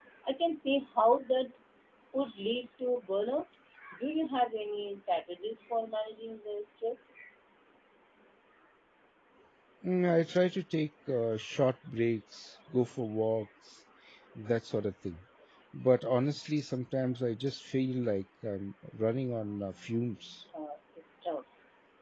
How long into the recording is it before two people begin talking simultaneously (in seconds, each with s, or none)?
none